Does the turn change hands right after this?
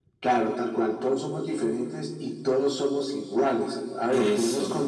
No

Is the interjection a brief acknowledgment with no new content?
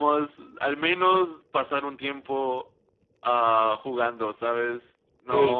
No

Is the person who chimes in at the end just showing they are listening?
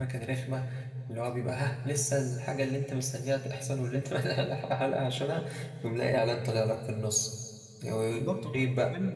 No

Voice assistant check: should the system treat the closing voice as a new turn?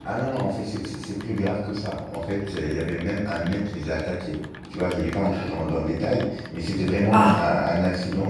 No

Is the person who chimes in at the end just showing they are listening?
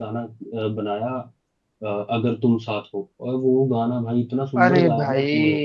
No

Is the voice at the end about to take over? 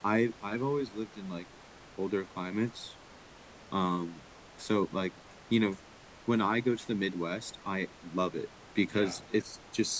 No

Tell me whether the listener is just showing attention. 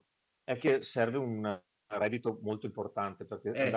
Yes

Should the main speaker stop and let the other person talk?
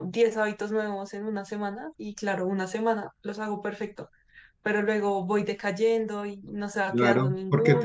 Yes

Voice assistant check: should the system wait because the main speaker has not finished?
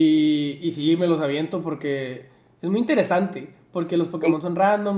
Yes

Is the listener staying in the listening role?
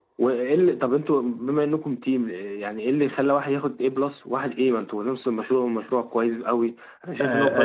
No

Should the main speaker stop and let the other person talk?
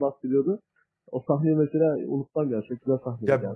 Yes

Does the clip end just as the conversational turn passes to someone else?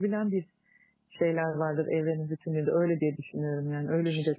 Yes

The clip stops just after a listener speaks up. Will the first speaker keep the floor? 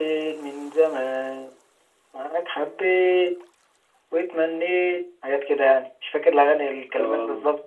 No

